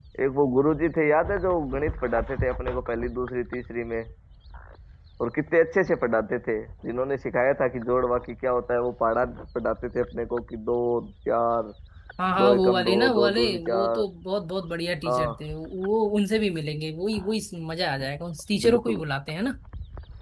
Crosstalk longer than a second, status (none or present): present